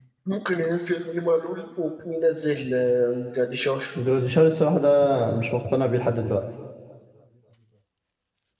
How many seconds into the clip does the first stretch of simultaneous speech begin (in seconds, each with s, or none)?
none